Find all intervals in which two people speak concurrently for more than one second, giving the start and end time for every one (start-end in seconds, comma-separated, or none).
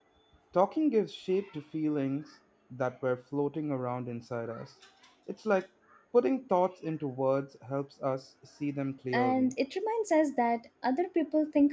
none